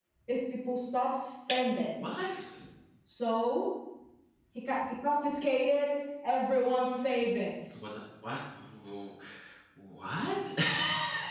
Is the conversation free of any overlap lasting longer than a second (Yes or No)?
Yes